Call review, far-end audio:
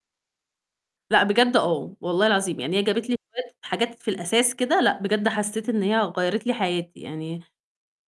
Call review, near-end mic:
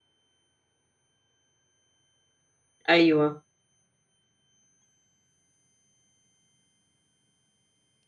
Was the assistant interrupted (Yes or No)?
Yes